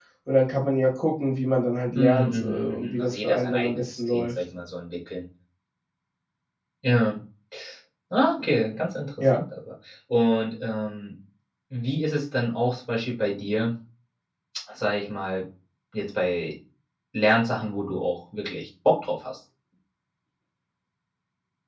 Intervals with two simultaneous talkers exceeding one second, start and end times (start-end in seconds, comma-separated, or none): 2.0-4.3